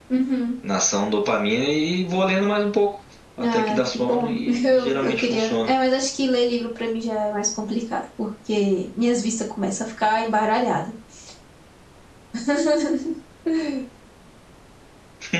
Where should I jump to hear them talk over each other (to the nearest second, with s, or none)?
3 s